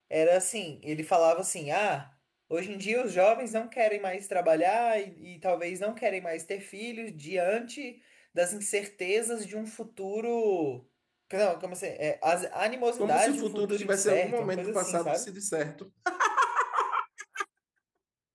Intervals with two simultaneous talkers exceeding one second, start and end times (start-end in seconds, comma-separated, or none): 13.0-15.2